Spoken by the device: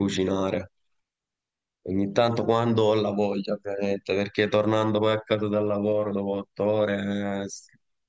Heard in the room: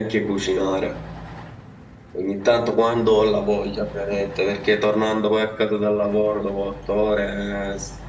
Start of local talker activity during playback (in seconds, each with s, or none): none